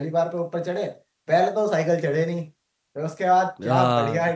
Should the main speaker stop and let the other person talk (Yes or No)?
No